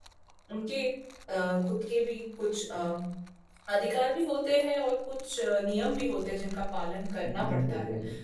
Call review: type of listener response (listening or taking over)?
taking over